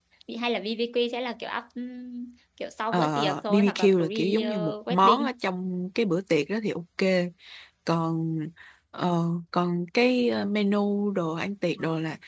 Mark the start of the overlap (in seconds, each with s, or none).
2.9 s